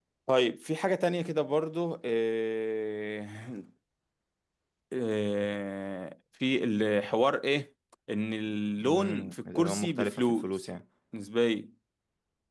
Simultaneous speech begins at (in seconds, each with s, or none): 8.8 s